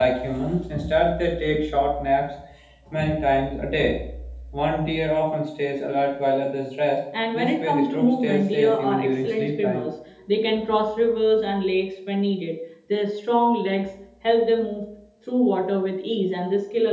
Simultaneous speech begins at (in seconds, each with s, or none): 7.1 s